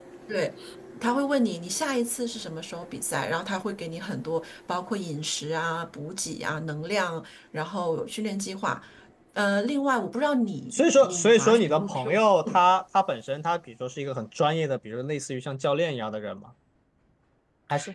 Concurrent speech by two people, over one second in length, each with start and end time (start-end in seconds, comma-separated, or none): 10.7-12.6